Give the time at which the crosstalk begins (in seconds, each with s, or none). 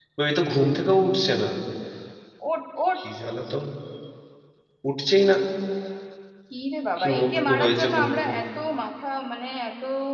7.0 s